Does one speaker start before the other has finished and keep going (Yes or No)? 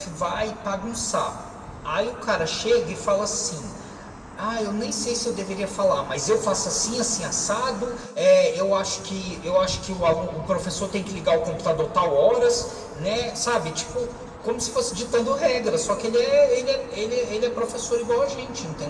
No